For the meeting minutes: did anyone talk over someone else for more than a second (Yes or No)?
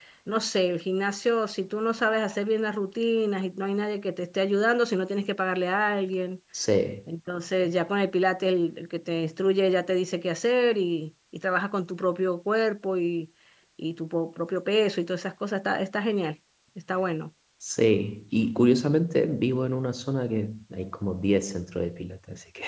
No